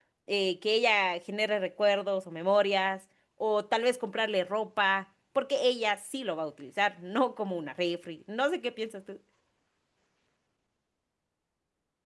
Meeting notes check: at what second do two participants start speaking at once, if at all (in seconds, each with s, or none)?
none